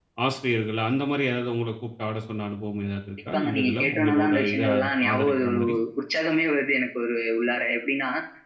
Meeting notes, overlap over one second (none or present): present